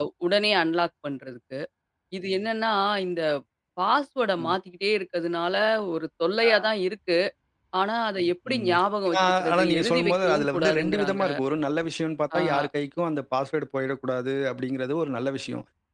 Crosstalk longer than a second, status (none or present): present